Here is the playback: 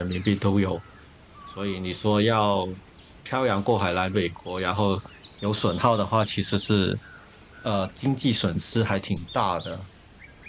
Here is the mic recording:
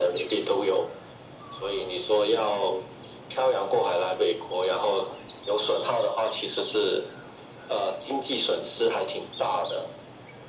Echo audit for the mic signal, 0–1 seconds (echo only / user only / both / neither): echo only